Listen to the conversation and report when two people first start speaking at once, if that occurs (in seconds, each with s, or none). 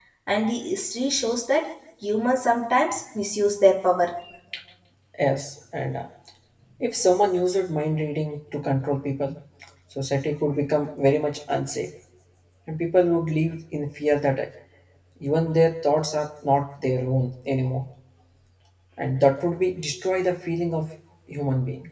none